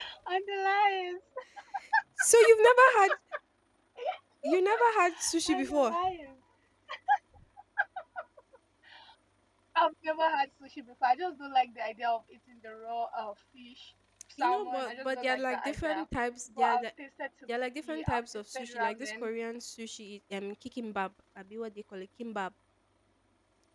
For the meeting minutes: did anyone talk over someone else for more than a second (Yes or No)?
Yes